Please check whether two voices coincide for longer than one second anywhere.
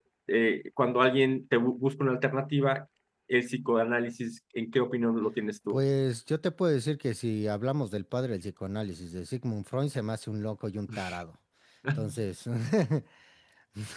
No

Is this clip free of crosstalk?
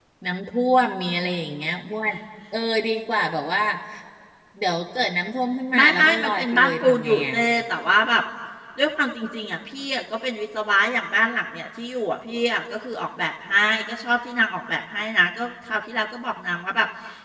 No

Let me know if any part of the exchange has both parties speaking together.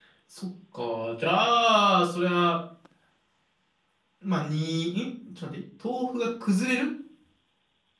No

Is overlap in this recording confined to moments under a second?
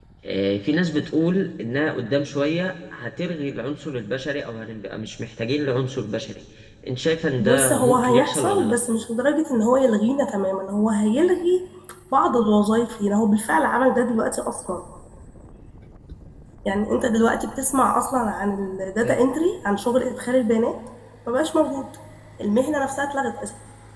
No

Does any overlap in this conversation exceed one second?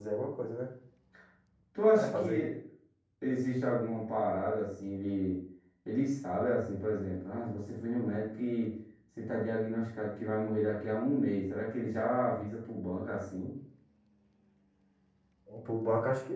No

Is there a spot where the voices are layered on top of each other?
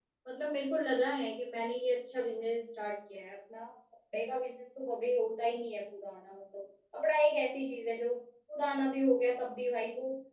No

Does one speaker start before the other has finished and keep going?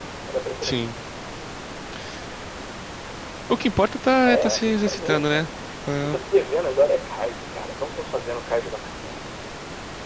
Yes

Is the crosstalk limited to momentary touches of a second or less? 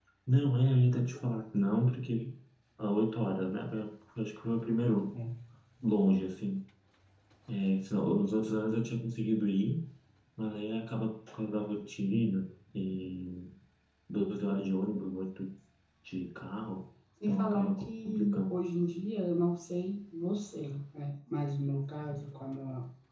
No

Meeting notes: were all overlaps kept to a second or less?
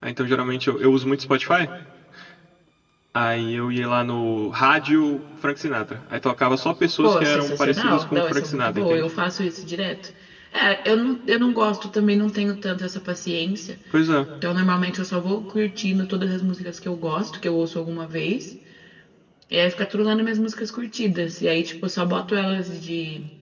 No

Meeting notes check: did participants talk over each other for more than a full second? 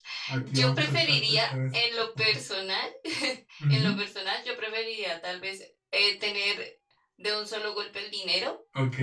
Yes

